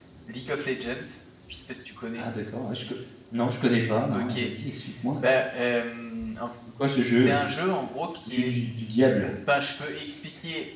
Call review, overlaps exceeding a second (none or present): none